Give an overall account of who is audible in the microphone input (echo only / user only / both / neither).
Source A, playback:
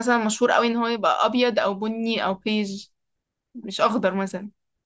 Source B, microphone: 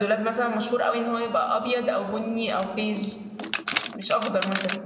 echo only